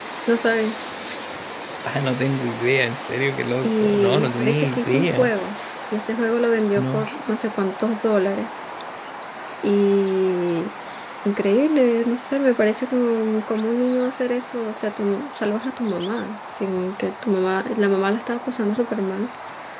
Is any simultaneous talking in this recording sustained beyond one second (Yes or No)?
Yes